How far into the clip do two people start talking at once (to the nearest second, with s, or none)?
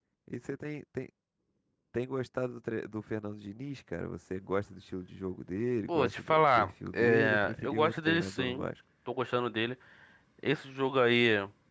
6 s